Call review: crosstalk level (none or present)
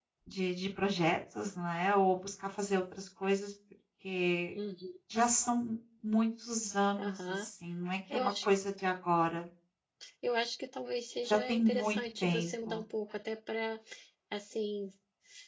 present